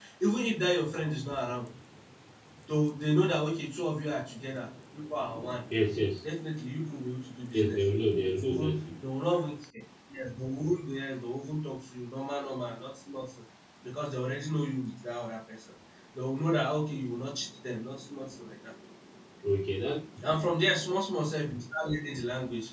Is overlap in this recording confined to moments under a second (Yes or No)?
Yes